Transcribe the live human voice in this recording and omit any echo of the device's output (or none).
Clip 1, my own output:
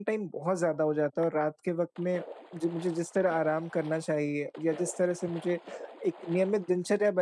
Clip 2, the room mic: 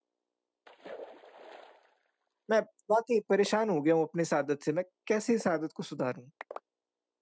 मैं बहुत ही परेशान हो गया हूँ अपने इस आदत से। मैं कैसे इस आदत को सुधारूँ?